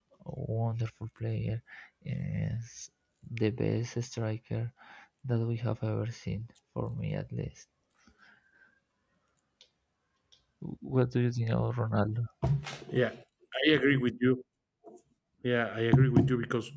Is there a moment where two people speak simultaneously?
No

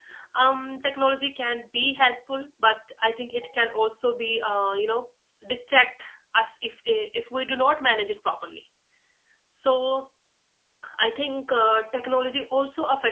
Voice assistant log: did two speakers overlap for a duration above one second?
No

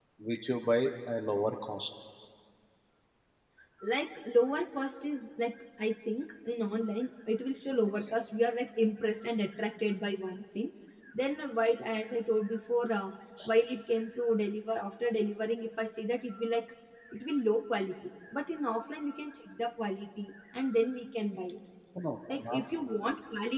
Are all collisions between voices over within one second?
Yes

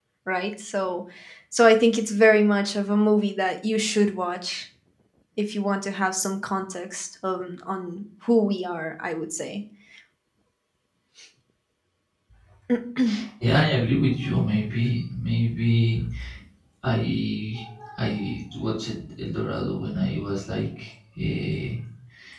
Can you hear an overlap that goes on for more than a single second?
No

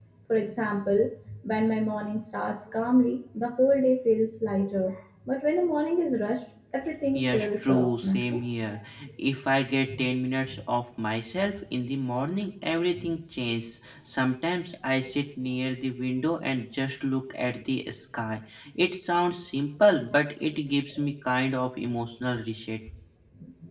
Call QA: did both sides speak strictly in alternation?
No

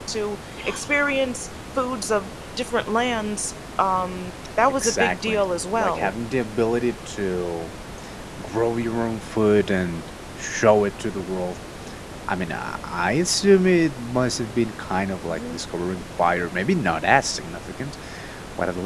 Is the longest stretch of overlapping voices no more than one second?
No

